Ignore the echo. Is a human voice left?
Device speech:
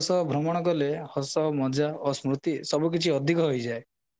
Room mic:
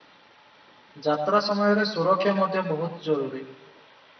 Yes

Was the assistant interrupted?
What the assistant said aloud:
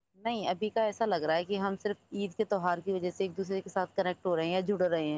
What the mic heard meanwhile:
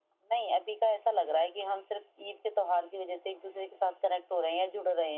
No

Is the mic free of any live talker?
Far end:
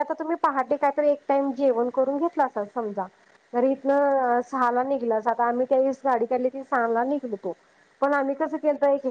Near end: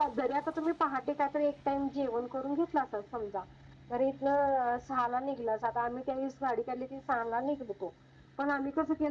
Yes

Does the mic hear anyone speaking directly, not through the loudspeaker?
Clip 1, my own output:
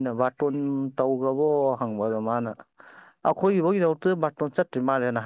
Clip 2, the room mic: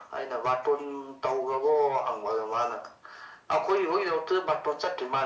No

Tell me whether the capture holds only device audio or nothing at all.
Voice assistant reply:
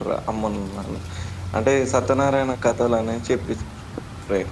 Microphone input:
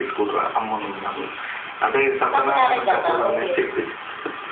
No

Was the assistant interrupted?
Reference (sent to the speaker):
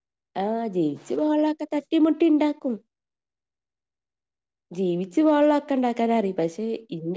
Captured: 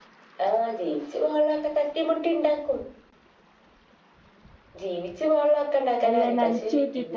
Yes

